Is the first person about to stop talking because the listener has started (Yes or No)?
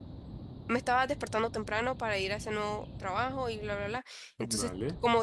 No